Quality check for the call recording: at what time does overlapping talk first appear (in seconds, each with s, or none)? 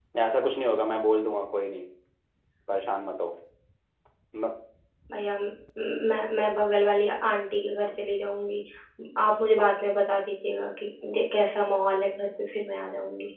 none